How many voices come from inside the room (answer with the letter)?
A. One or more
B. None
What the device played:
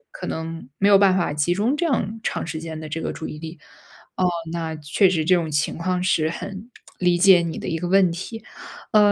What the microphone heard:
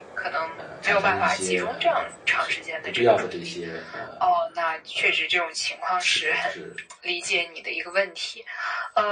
A